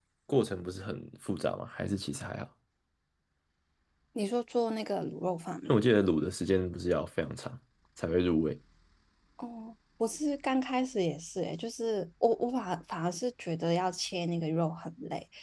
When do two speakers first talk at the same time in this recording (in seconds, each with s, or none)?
none